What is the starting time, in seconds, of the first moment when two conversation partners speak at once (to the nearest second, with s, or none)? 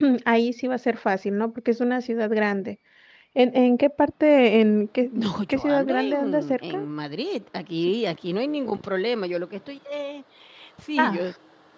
5 s